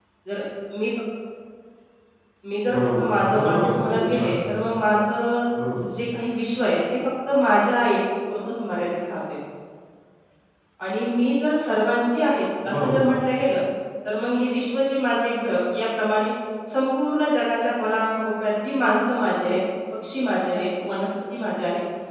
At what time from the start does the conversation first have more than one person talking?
3 s

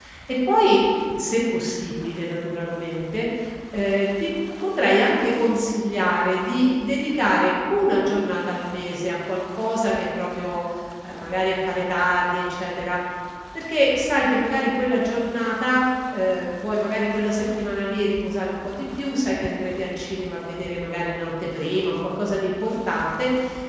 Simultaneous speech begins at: none

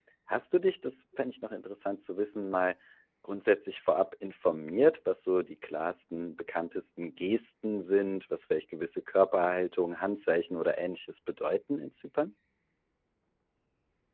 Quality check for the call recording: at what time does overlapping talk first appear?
none

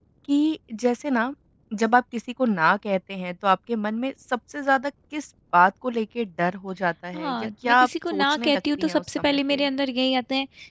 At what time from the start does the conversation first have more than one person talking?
7 s

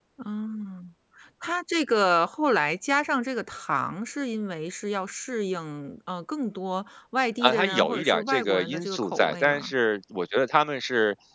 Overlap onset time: 7 s

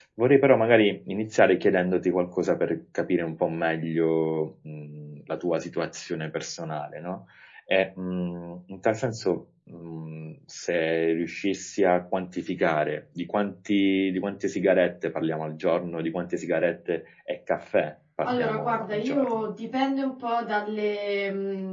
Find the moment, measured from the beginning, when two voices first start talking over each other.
18 s

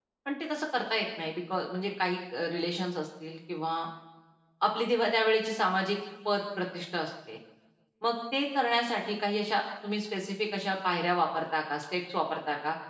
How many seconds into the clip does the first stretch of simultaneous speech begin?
none

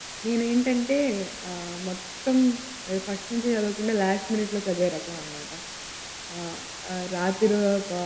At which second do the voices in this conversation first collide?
none

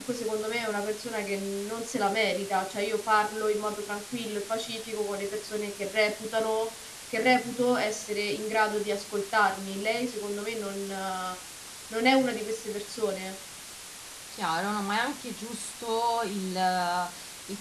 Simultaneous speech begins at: none

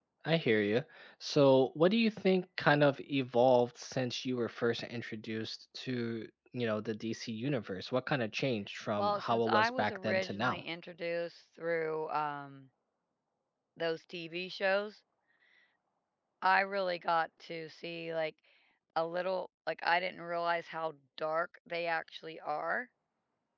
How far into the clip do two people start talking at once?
9 s

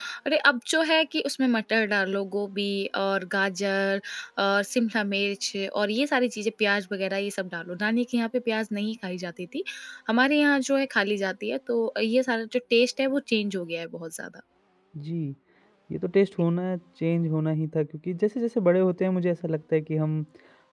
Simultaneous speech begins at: none

